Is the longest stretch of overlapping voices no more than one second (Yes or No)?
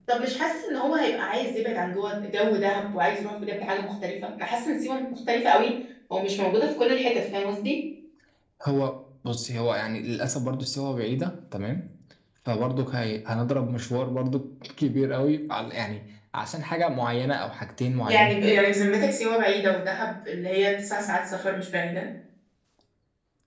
Yes